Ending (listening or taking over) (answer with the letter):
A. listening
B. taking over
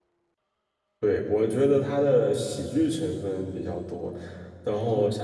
A